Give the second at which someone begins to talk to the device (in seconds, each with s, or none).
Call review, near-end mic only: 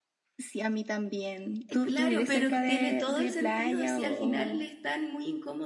1.7 s